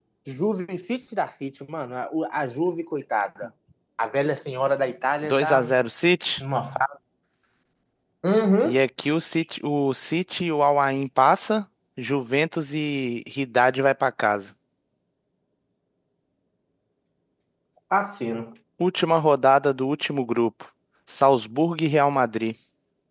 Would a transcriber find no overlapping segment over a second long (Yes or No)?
Yes